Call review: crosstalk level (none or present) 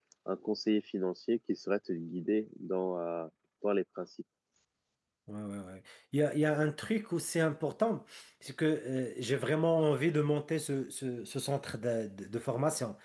none